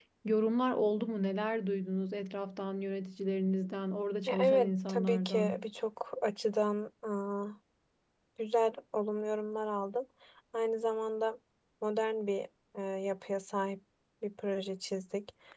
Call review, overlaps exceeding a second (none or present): present